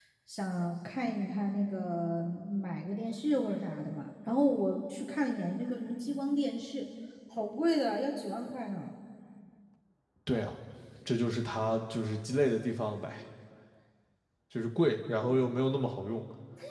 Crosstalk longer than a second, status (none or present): none